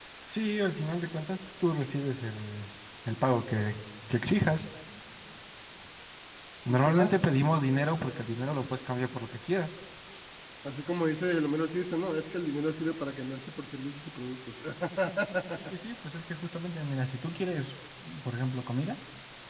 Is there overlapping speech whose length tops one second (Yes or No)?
No